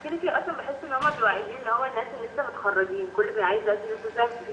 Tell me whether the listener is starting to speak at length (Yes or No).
Yes